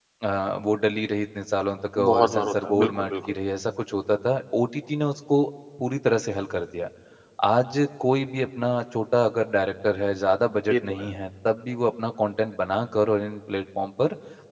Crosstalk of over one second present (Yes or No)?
Yes